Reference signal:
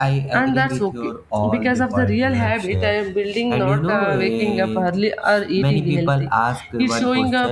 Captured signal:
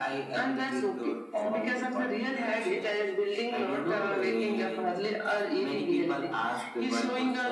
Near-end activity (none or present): none